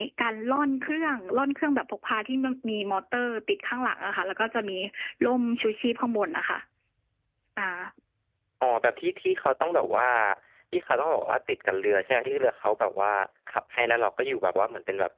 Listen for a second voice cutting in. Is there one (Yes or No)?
No